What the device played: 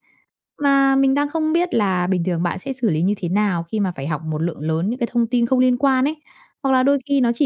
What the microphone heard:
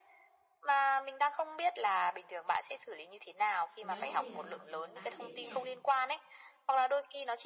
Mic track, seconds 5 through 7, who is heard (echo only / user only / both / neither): both